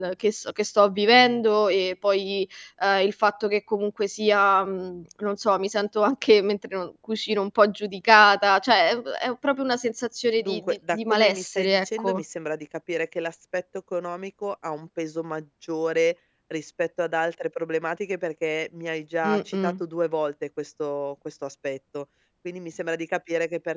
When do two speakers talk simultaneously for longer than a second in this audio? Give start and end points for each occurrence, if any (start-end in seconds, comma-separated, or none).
10.4-12.2